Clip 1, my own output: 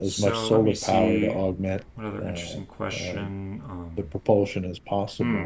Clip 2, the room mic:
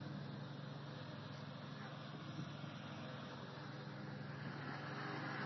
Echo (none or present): none